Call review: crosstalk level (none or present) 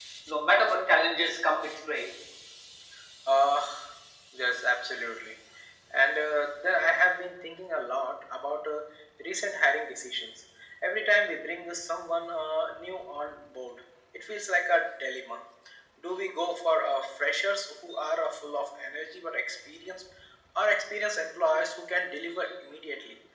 none